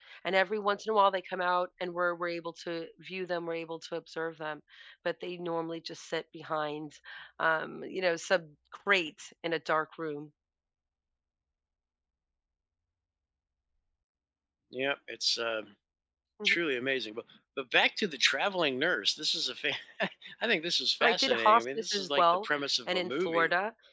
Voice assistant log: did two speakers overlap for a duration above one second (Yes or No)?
Yes